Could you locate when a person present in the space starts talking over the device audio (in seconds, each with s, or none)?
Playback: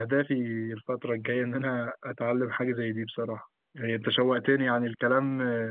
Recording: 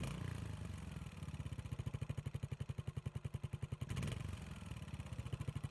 none